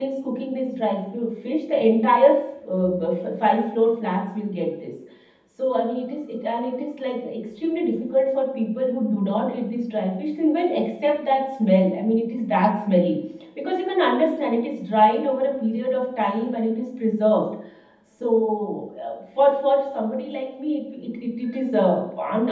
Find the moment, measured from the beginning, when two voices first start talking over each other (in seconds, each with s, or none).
none